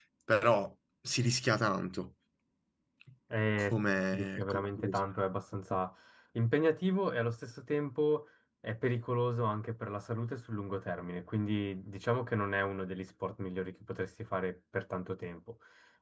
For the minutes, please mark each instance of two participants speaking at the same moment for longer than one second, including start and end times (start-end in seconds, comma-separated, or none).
3.7-5.0